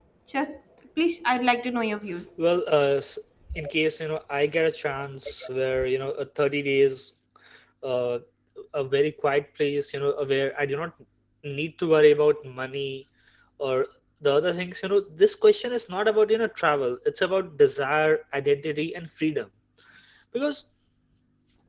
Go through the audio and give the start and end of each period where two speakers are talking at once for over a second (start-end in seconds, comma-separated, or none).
none